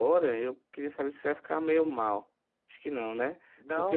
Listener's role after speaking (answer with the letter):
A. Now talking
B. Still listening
B